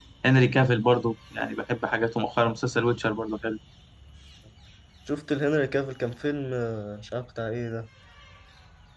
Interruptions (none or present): none